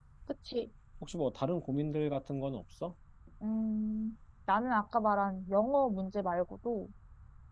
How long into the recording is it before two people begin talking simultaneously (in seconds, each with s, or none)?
none